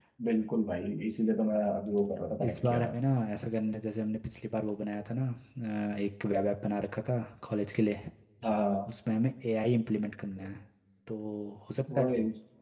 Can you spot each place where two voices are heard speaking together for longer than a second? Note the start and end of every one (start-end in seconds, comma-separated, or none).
none